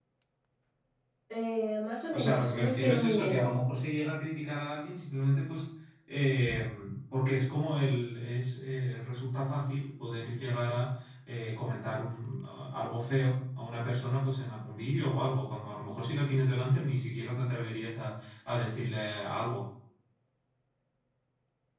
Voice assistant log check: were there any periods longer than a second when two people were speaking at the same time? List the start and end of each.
2.1-3.4

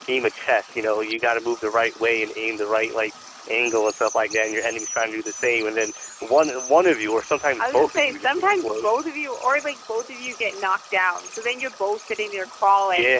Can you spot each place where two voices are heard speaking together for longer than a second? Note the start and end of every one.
7.6-8.9

